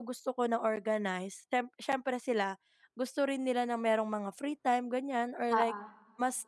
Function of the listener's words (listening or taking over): listening